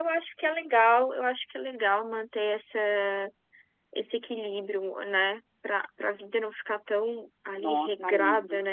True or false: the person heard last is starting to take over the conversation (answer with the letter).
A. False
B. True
B